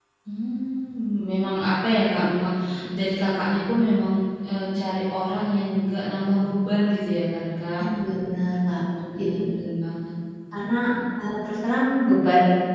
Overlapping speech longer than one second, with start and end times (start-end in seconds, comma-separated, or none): none